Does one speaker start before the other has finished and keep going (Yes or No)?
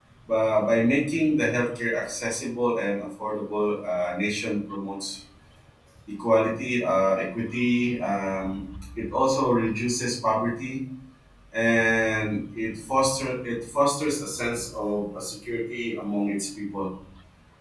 No